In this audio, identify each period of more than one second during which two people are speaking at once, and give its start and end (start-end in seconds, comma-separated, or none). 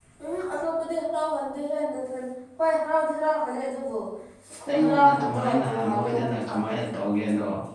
4.7-6.8